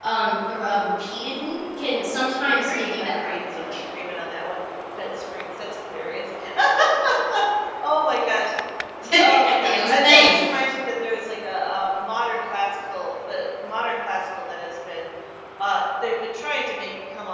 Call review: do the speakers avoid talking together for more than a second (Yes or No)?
No